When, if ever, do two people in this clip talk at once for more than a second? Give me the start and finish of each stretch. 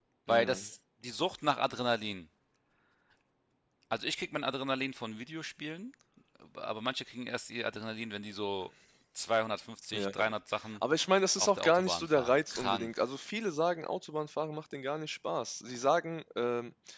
11.4-13.0

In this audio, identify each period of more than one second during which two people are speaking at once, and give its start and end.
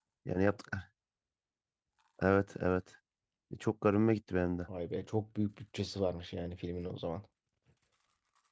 none

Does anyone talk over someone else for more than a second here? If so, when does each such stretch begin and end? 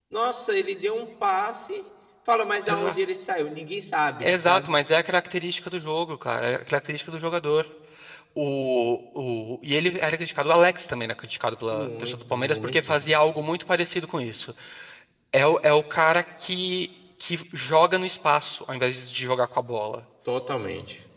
11.7-12.9

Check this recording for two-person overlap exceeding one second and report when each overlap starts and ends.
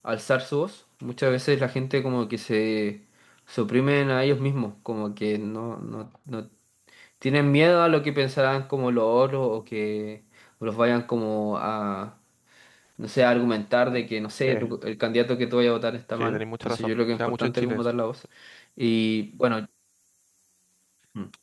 16.1-17.9

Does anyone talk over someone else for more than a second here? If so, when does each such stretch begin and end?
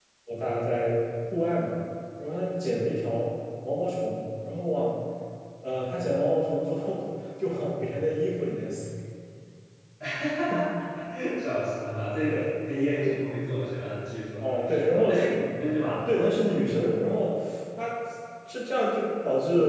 none

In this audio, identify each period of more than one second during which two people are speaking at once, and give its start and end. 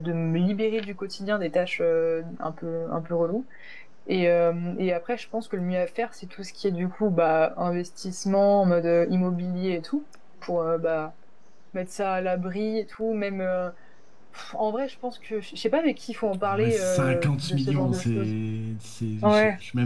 16.4-18.3

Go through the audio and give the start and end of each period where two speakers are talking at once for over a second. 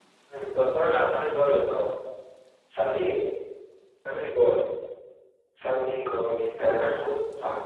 none

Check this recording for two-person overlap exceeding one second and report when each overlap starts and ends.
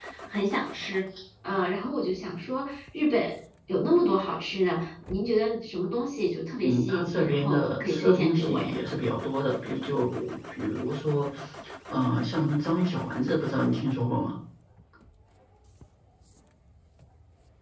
6.6-8.7

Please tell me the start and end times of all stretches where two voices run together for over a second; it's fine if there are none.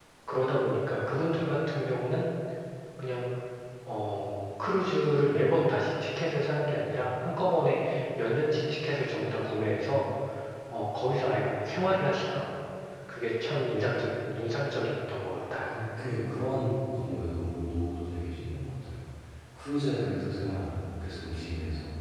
none

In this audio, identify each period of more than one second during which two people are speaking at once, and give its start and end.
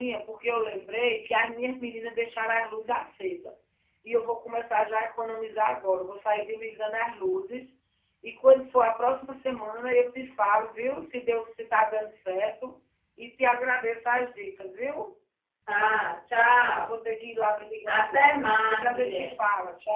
17.9-19.3

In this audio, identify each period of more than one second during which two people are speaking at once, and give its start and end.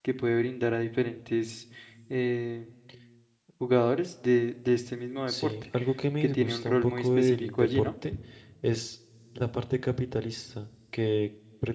6.3-7.9

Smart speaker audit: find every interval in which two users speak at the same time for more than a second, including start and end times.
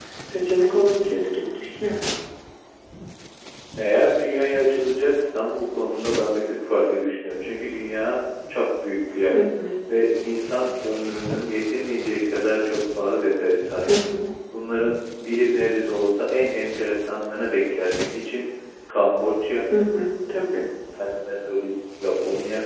none

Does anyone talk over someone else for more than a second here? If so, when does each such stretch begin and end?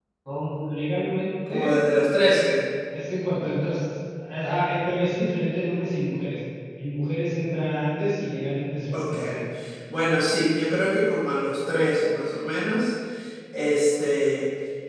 none

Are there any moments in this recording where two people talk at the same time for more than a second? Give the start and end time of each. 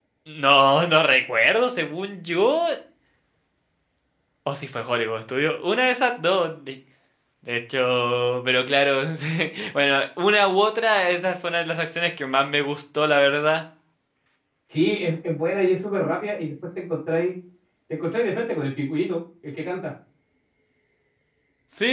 none

